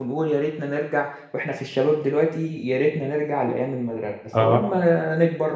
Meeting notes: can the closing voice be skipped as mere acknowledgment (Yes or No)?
Yes